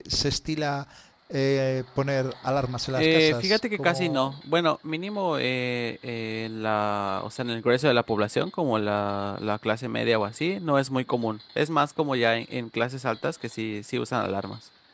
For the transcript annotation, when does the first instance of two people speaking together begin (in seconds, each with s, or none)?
3.0 s